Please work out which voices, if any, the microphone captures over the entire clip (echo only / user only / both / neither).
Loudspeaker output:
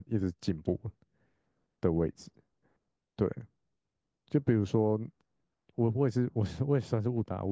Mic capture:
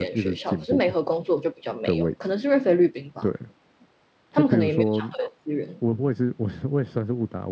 both